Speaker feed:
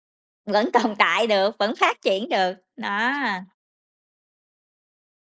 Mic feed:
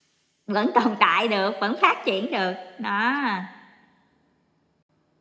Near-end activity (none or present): none